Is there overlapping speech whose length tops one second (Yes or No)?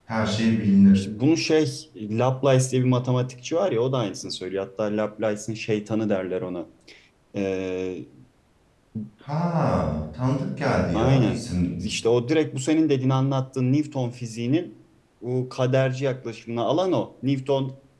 No